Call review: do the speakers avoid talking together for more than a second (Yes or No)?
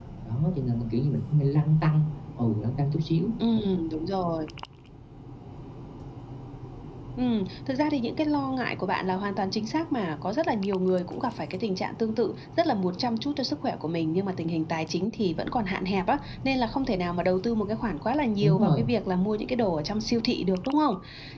Yes